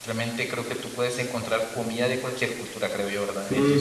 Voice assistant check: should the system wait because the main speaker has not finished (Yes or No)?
No